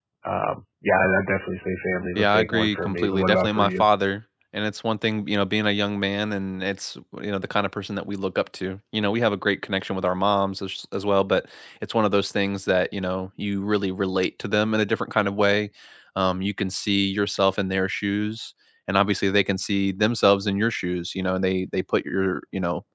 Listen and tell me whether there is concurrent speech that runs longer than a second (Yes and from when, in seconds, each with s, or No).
Yes, from 2.2 s